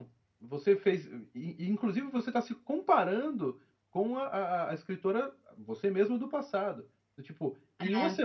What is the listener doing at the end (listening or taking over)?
listening